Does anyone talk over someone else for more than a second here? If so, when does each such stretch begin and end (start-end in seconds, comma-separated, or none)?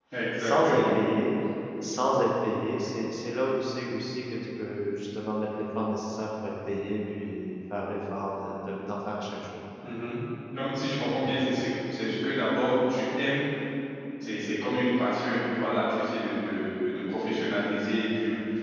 none